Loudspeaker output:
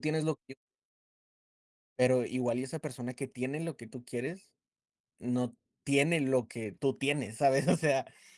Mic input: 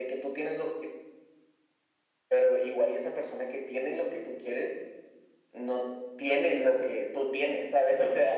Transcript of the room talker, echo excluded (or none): none